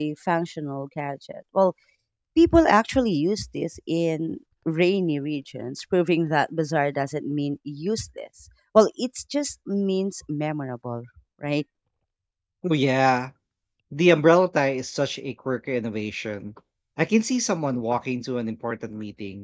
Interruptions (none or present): none